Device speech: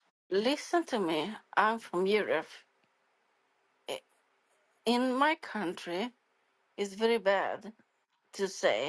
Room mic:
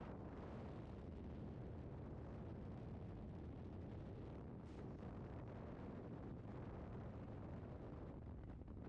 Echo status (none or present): none